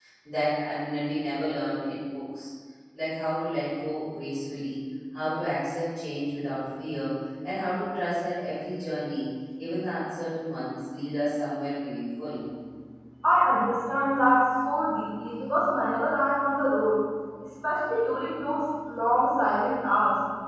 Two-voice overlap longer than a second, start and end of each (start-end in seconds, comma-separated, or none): none